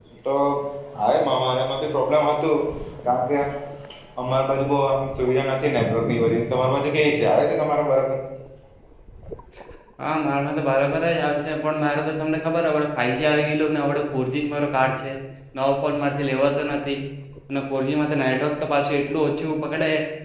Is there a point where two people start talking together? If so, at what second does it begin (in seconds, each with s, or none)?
none